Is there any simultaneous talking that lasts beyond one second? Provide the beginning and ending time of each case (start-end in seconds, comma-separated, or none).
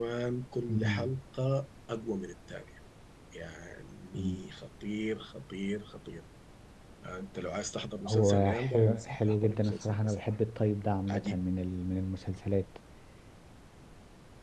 8.0-10.3